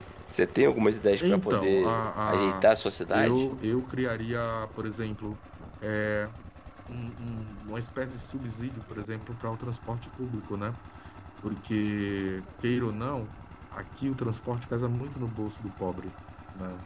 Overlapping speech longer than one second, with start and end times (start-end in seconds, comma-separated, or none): 1.2-2.6